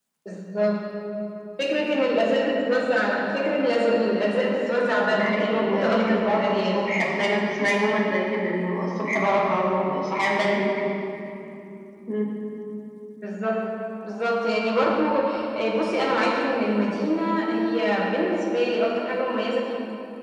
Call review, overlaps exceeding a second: present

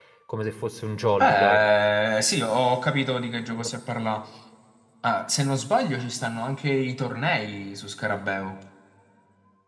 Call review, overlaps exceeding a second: none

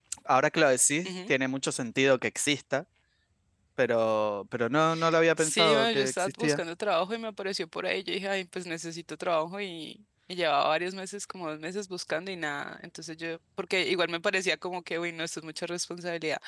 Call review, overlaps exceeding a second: present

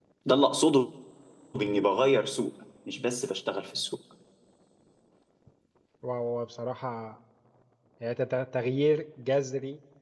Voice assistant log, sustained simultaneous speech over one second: none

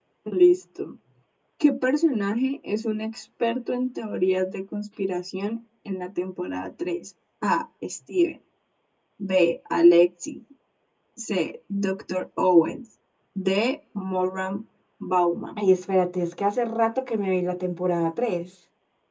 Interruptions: none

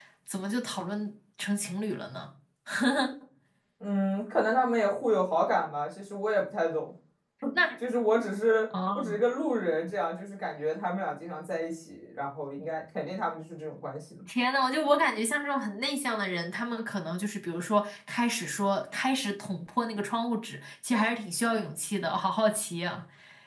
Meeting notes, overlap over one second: none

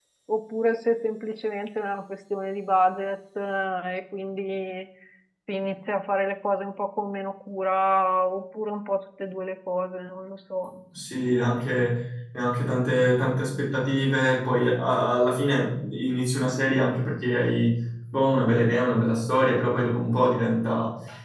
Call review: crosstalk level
none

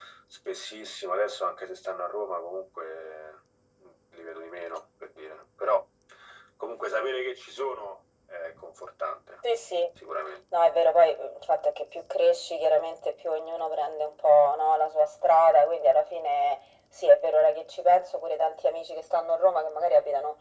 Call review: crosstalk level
none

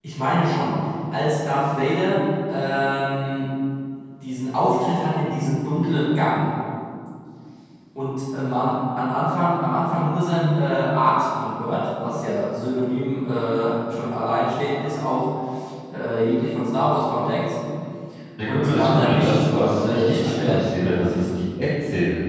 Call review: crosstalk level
present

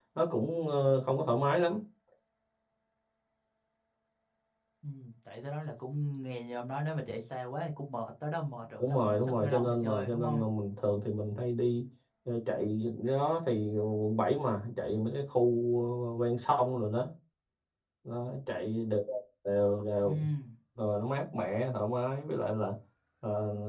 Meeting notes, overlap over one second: present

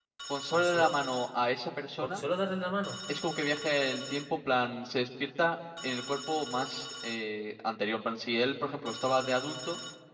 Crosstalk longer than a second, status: none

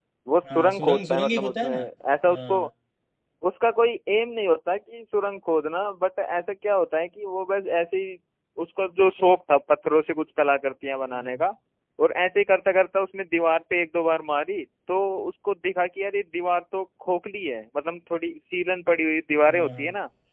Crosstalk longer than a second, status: present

